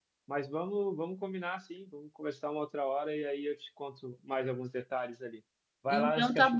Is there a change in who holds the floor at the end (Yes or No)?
Yes